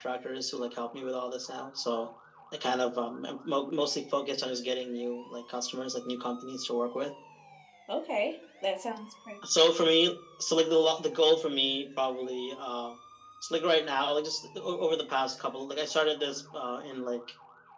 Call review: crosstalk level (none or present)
none